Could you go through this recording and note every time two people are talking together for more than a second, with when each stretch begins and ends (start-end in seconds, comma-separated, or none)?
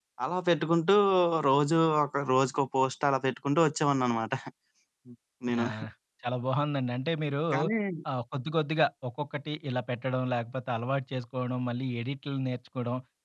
none